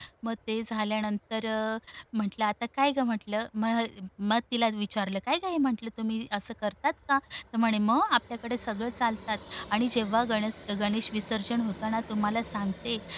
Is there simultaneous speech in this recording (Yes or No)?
No